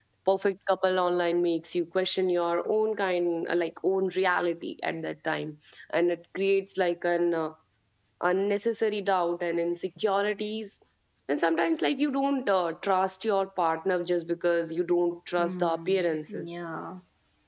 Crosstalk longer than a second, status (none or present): present